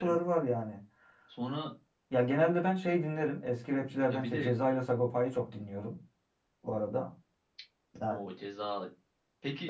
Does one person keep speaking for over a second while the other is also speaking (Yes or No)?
No